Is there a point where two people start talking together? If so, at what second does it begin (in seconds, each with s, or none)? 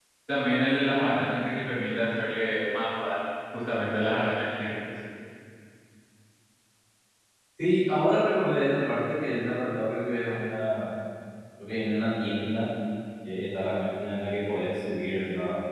none